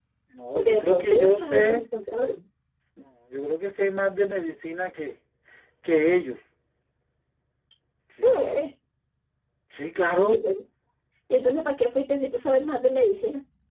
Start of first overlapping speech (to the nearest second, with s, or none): 1 s